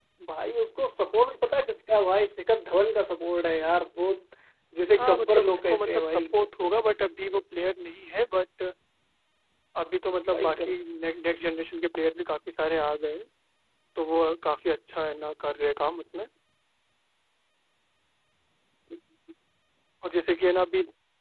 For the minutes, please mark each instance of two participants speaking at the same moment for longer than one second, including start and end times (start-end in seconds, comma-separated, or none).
5.0-6.2